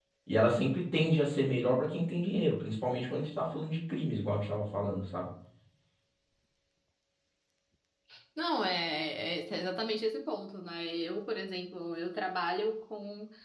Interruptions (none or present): none